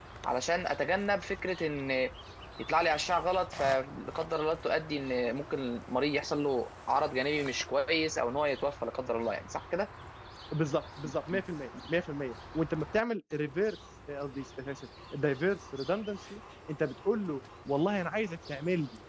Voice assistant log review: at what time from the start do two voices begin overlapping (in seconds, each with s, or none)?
none